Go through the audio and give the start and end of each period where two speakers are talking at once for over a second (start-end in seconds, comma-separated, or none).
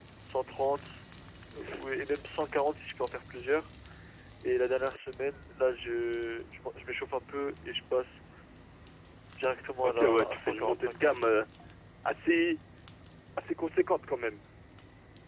9.8-11.3